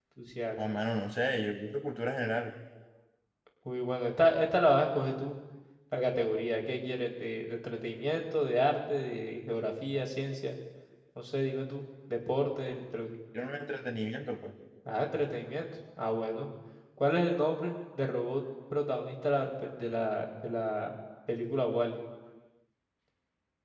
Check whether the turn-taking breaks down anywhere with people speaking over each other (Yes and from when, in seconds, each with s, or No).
No